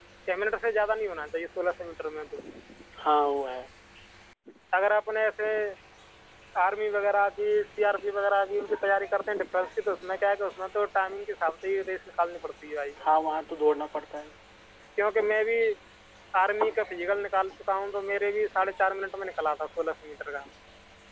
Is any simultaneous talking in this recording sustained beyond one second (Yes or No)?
No